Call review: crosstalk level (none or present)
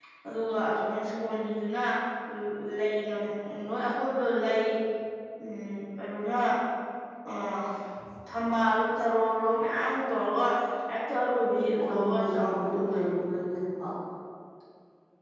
present